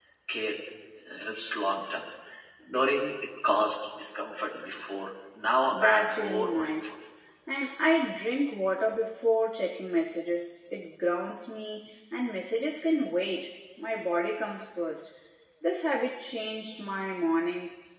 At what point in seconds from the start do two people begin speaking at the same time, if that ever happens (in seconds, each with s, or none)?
5.7 s